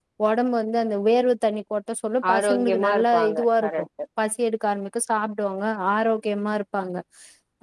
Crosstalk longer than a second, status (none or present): present